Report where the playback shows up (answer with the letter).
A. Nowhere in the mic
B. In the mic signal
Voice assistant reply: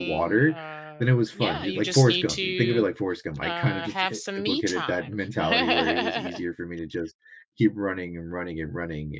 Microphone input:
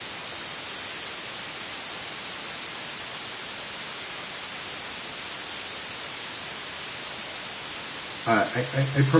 A